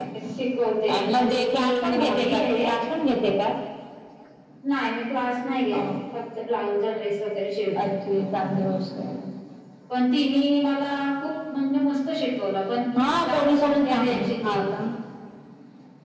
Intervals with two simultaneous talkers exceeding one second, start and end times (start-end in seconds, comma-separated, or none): 0.9-2.4, 13.2-14.6